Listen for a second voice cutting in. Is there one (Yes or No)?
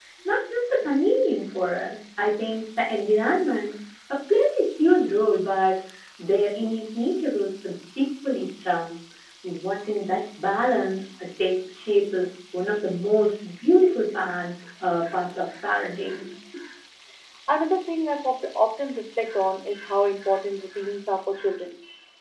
No